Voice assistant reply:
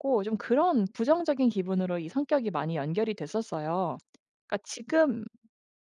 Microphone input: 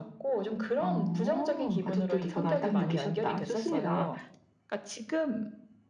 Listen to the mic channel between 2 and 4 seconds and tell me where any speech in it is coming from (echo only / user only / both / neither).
both